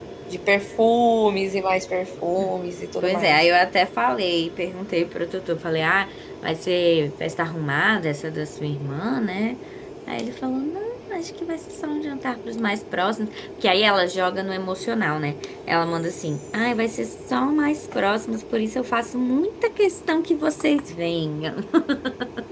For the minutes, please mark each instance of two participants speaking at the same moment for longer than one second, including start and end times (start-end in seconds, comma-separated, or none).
none